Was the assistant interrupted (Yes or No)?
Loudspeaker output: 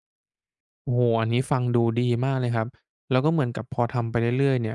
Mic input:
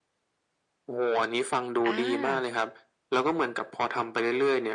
Yes